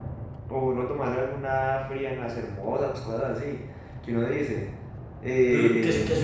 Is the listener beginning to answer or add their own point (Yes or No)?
Yes